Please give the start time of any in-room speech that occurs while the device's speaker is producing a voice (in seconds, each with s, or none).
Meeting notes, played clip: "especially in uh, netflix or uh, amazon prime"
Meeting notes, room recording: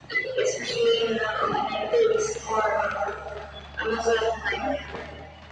none